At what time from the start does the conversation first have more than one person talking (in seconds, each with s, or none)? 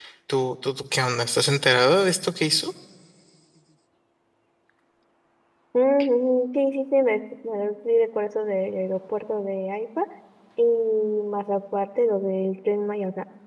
none